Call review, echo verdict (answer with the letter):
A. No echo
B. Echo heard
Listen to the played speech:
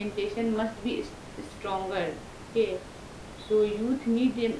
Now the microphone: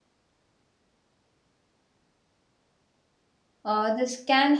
A